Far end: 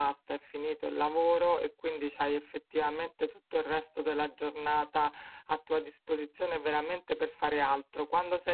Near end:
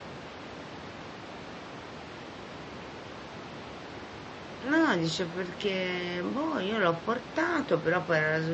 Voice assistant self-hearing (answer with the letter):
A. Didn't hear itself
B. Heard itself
A